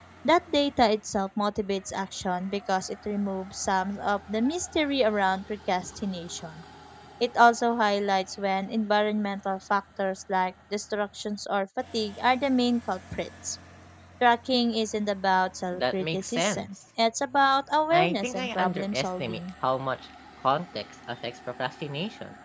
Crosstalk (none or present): present